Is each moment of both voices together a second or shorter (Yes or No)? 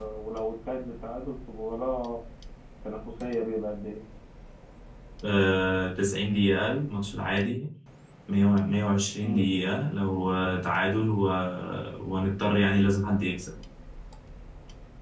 Yes